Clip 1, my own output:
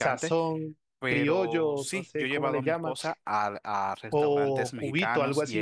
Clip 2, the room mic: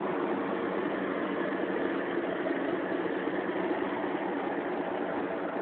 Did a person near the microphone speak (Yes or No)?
No